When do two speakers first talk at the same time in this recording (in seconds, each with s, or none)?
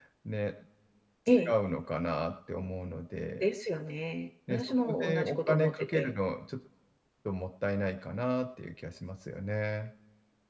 4.5 s